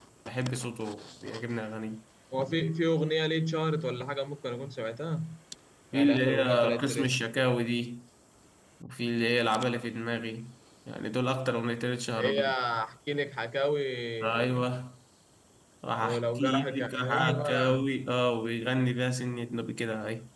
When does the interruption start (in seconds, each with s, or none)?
5.9 s